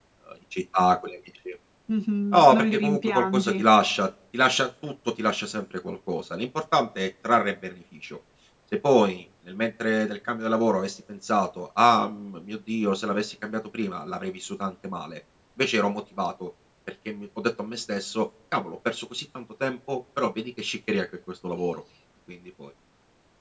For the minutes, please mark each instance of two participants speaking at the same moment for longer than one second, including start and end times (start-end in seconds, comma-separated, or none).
2.3-3.5